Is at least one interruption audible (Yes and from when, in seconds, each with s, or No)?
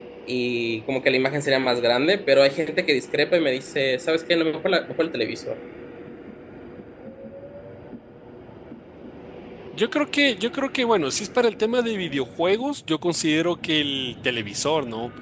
No